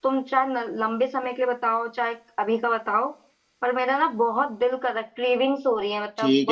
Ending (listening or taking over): taking over